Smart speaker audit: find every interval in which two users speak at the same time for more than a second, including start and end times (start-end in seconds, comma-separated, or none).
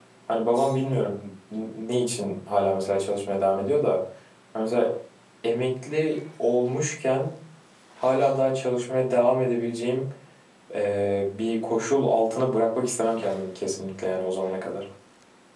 none